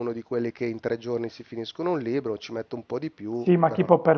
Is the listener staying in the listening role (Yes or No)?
No